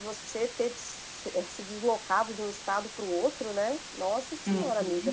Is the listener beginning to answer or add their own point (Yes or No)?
Yes